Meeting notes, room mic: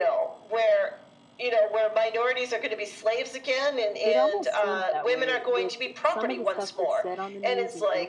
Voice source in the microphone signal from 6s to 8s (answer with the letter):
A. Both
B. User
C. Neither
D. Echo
A